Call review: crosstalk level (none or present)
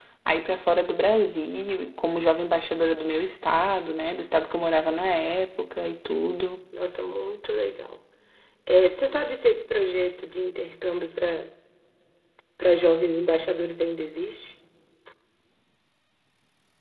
none